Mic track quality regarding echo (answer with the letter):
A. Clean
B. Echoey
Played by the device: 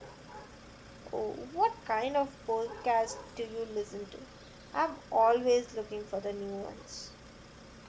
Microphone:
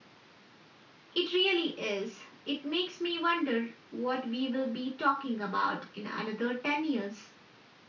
A